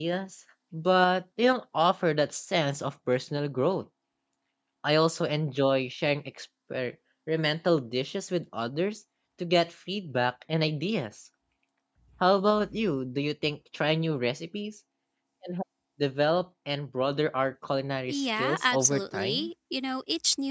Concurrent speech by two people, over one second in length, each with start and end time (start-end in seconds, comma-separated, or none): 18.1-19.5